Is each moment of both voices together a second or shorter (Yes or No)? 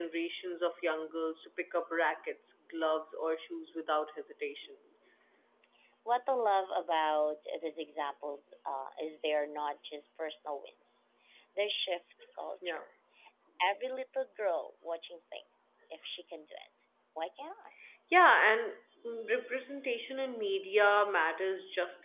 Yes